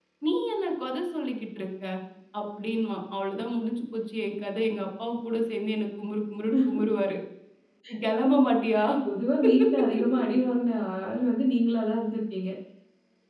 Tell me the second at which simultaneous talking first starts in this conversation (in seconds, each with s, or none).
none